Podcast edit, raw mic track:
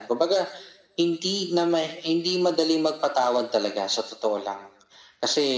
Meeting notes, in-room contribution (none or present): none